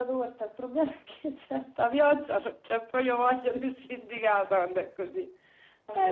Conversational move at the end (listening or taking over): taking over